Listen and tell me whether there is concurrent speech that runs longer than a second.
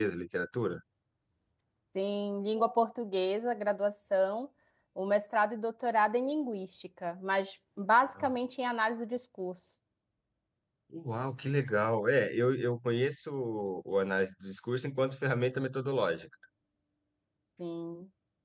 No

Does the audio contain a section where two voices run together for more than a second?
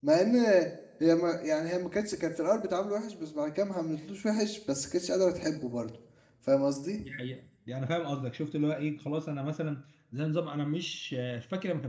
No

